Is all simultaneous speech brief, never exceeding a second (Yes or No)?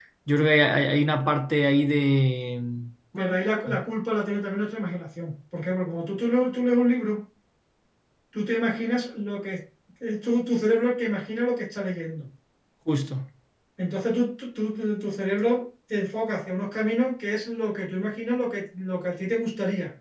Yes